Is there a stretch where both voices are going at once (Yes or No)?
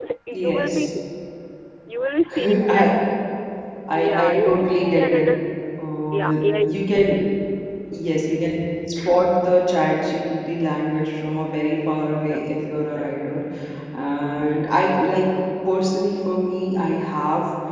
Yes